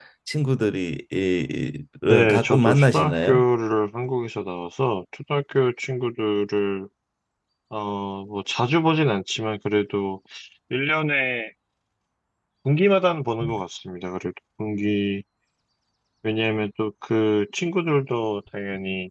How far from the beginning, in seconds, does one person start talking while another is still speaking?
2.1 s

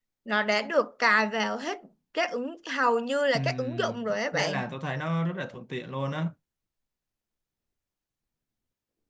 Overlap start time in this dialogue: 3.3 s

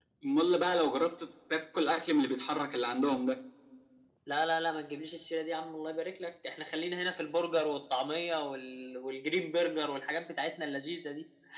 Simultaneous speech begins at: none

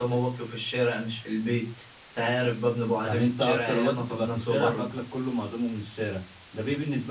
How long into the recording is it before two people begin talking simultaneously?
3.0 s

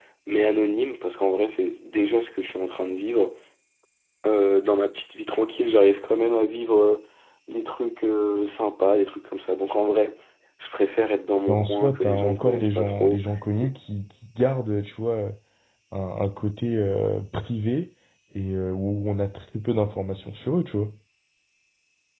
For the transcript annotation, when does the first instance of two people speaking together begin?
11.5 s

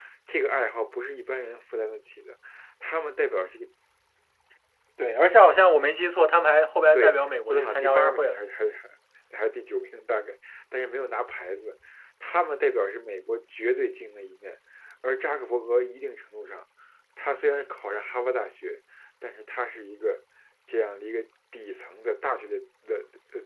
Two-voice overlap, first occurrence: 6.9 s

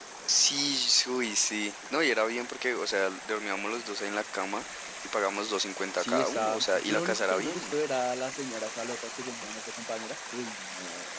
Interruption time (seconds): 6.0 s

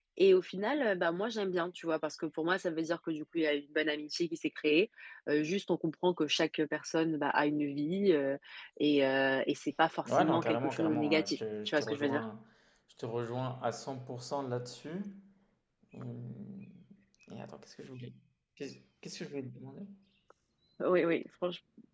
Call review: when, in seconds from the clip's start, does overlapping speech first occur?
10.0 s

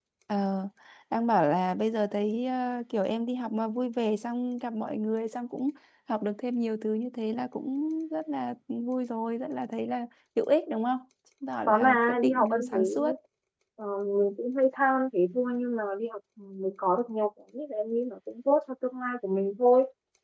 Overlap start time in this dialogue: 11.7 s

